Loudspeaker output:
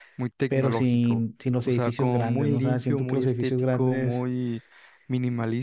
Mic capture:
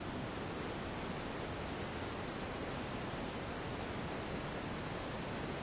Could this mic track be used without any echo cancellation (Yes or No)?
Yes